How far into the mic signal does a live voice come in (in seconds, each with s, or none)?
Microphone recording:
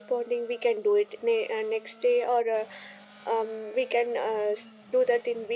none